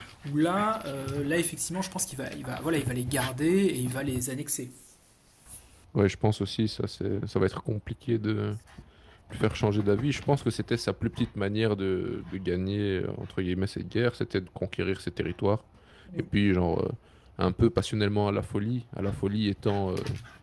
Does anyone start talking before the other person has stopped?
No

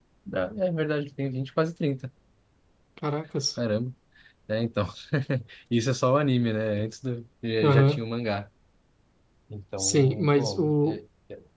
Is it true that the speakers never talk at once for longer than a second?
No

